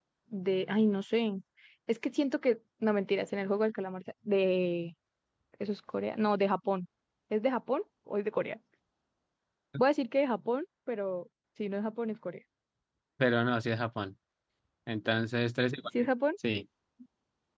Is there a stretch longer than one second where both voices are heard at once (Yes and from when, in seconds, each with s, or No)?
No